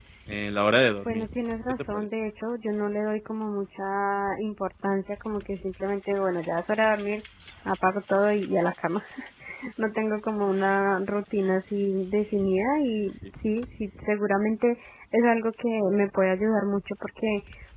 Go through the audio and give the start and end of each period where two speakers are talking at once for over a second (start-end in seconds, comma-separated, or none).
none